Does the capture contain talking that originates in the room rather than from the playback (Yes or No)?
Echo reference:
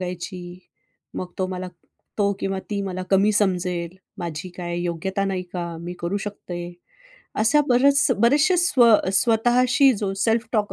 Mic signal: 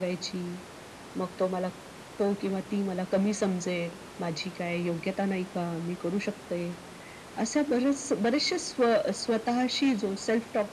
No